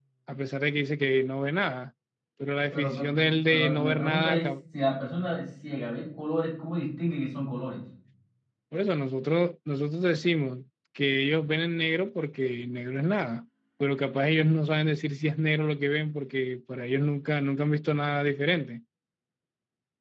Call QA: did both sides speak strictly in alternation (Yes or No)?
No